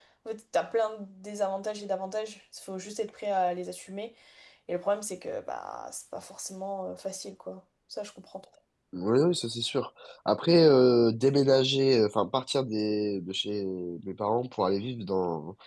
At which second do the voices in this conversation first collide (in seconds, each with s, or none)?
none